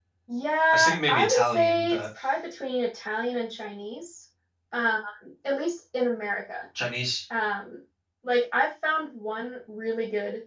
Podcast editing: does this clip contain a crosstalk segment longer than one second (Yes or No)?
Yes